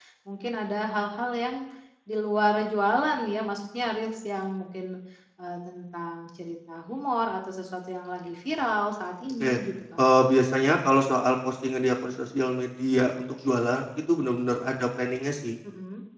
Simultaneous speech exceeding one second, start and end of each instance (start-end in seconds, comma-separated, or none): none